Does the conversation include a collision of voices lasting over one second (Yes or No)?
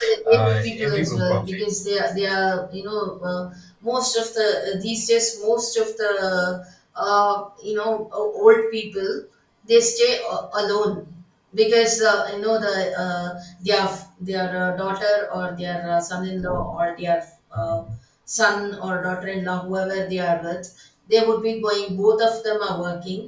Yes